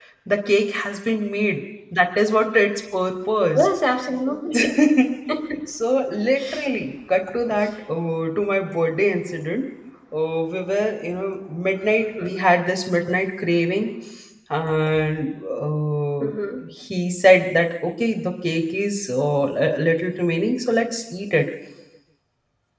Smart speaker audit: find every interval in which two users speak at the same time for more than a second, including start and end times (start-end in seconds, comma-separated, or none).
none